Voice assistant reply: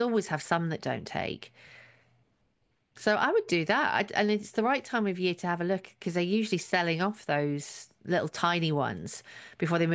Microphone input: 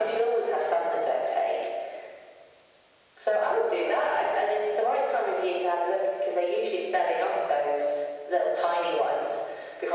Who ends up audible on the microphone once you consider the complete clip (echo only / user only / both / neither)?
echo only